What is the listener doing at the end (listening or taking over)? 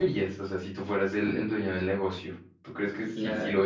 listening